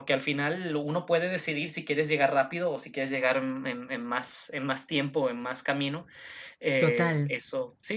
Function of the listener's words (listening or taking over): listening